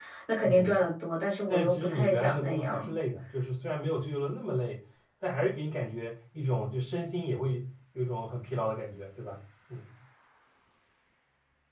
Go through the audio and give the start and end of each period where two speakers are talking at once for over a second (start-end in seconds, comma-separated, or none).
1.5-3.0